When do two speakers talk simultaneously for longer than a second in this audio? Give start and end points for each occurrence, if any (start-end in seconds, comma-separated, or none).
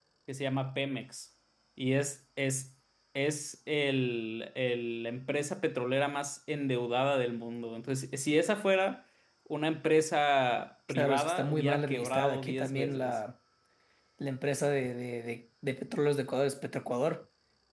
10.9-13.1